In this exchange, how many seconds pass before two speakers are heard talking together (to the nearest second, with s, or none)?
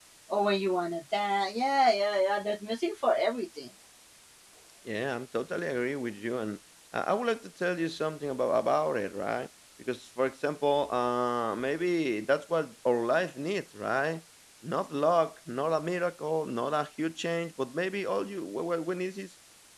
none